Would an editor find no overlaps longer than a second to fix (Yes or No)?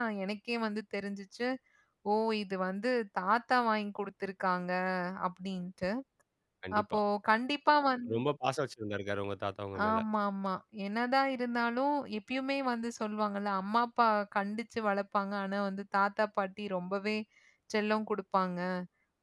Yes